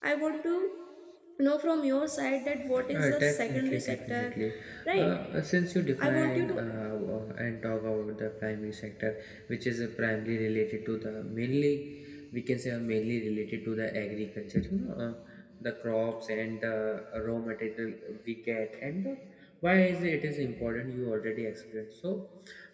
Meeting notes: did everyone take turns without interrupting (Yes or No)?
No